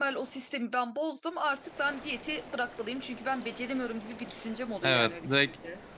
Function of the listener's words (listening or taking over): taking over